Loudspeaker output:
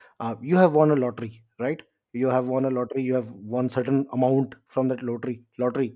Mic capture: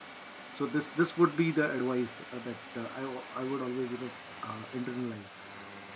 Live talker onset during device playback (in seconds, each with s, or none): 0.5 s